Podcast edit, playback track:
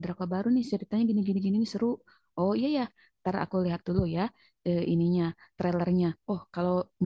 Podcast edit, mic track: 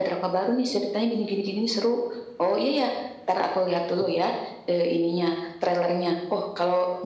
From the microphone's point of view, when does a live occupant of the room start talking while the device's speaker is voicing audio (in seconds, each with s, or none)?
none